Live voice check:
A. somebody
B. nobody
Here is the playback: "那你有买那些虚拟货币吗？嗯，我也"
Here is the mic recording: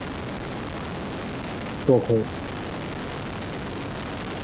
A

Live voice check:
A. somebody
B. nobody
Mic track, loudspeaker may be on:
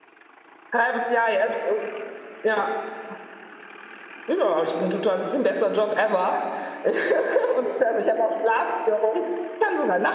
B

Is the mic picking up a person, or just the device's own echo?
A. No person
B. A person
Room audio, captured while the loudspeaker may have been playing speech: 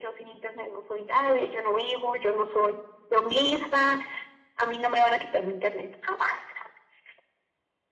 A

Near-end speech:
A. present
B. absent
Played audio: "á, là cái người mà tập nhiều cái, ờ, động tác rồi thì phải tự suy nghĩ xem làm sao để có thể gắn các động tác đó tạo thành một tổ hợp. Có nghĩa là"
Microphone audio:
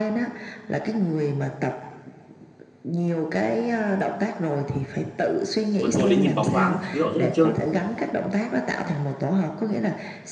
A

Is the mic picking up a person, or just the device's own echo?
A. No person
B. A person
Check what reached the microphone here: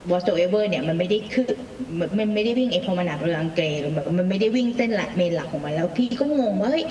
A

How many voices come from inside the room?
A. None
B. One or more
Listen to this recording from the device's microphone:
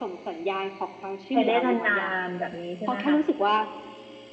B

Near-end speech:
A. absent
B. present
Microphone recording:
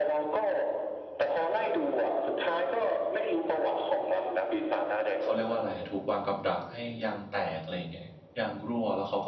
B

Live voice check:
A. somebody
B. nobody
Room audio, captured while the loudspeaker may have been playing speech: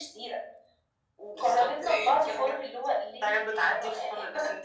B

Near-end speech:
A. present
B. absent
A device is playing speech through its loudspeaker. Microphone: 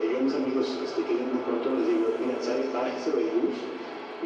B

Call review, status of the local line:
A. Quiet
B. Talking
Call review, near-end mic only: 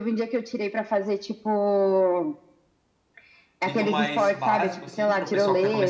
B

